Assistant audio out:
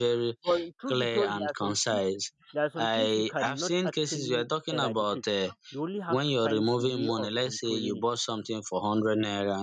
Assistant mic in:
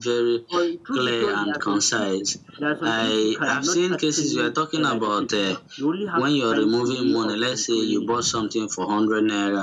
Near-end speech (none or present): none